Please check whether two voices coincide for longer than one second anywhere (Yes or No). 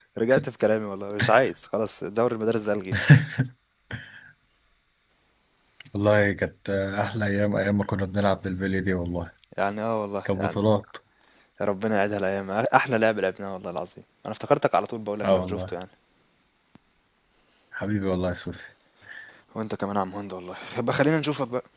No